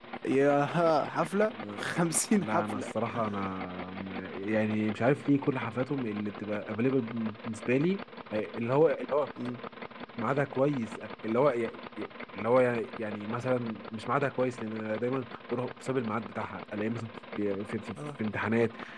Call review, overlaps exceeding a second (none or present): none